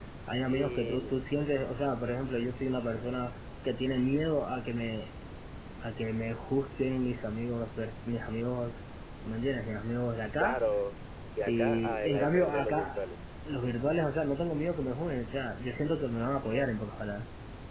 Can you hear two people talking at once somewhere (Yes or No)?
Yes